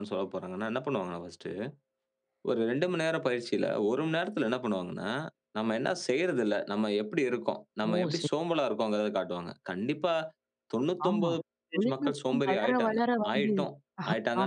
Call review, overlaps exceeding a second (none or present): present